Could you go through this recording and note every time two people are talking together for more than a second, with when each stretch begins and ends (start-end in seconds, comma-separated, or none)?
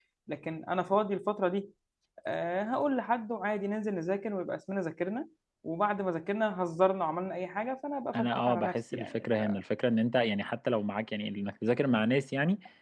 8.1-9.6